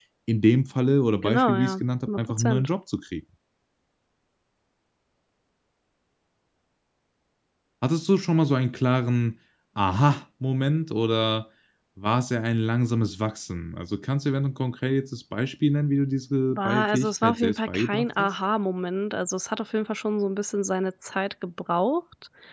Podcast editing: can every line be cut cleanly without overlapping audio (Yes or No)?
No